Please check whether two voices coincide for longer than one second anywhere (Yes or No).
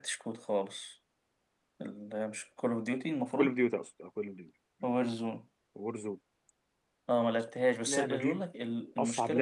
No